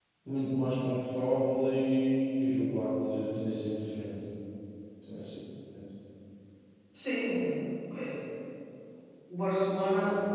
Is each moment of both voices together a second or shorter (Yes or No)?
Yes